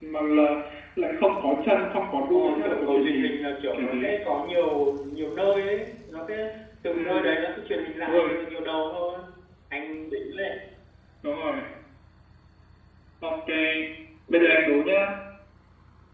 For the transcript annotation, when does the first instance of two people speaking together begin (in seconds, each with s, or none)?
2.2 s